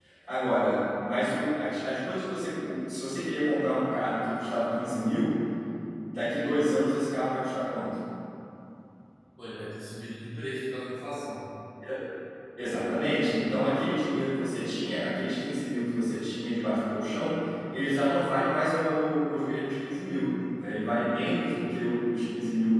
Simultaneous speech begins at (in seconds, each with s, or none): none